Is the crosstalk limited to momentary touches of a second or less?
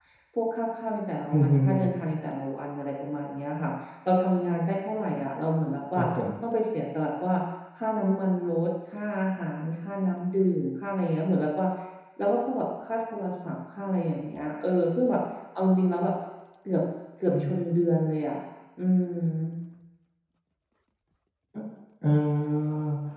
Yes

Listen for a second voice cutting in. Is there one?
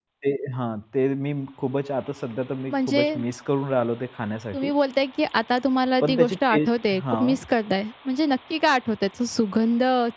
Yes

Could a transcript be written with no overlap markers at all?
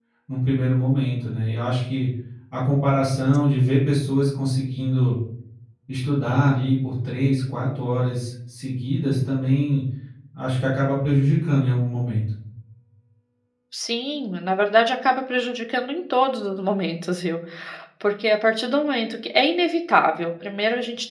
Yes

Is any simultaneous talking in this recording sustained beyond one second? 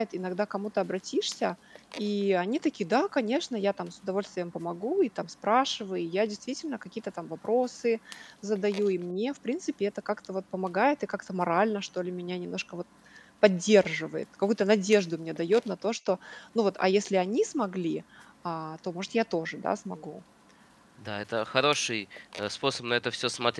No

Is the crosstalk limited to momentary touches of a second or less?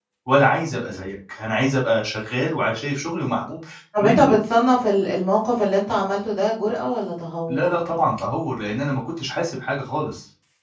Yes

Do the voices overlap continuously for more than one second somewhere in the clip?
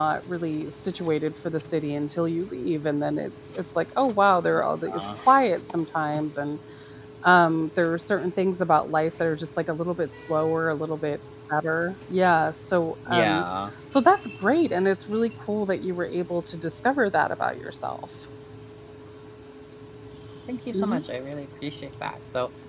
No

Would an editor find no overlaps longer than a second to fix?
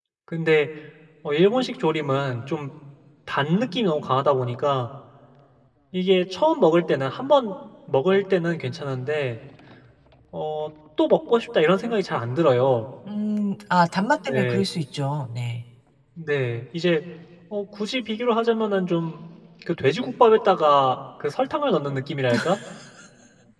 Yes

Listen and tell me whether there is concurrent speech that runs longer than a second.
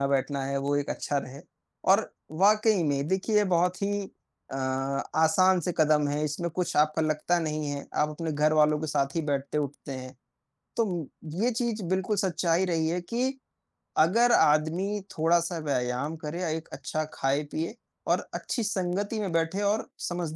No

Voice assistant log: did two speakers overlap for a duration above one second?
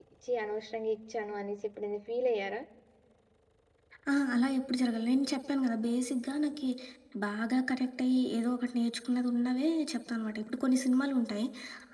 No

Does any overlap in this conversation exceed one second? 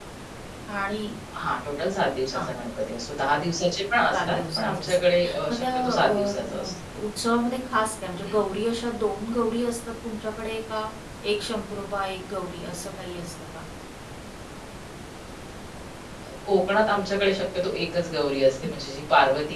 Yes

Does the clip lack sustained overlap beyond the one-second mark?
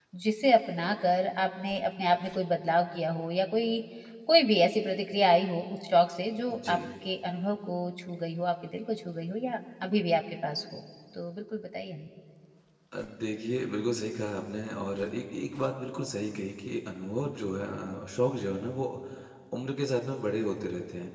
Yes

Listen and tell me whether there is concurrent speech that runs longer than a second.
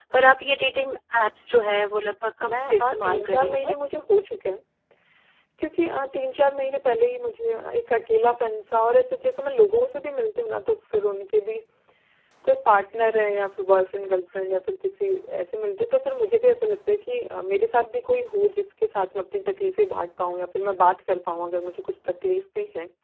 Yes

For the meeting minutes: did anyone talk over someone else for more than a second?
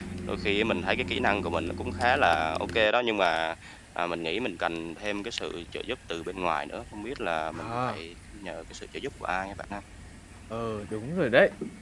No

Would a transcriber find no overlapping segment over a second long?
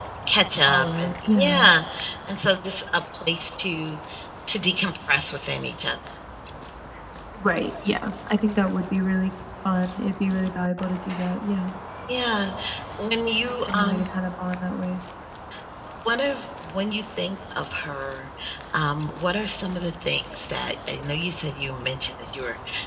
No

